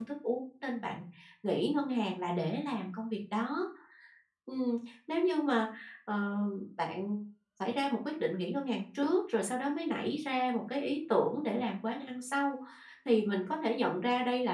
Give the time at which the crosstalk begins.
none

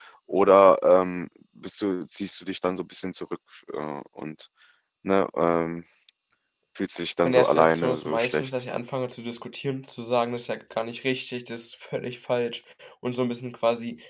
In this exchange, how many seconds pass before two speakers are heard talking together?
7.2 s

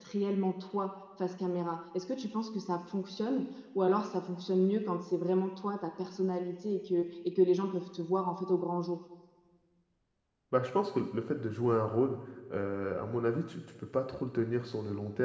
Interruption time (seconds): none

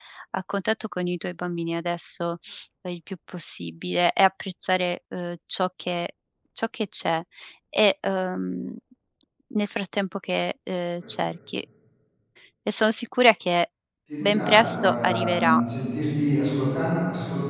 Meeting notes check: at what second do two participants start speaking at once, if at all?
14.2 s

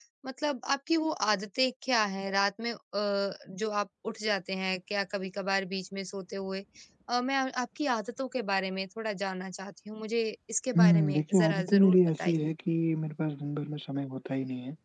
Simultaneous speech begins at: 10.8 s

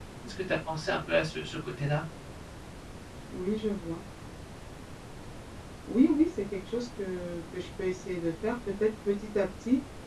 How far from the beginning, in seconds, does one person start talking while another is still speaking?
none

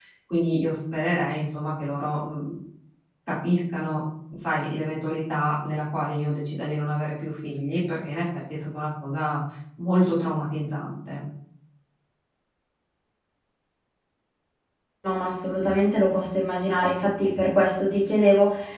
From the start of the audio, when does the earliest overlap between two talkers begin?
none

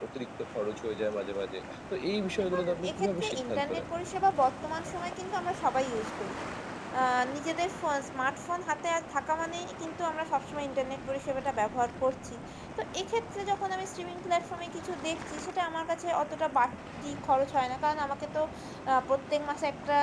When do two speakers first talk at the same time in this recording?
2.3 s

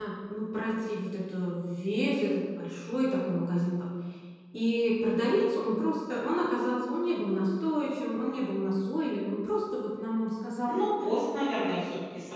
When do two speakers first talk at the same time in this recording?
none

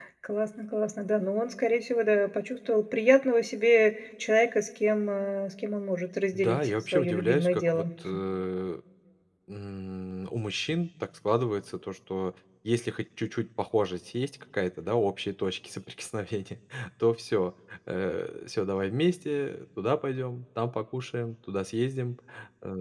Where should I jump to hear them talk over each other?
6.3 s

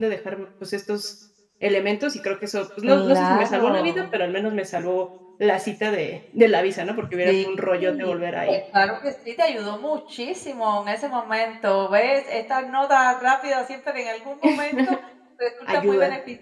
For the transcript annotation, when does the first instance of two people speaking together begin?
2.8 s

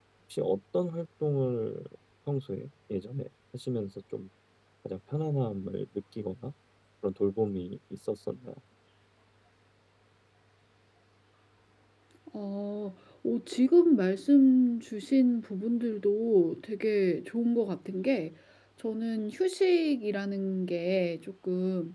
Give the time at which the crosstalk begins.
none

